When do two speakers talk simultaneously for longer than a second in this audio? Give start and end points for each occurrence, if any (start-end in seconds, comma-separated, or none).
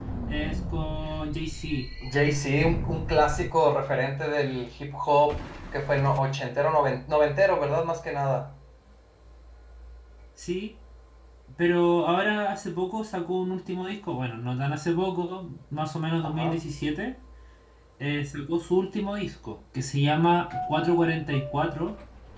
none